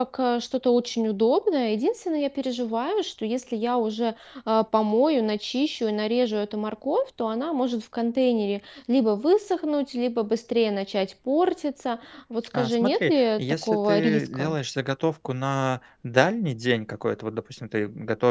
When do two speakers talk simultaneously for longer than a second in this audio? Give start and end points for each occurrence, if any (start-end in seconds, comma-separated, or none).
12.5-14.6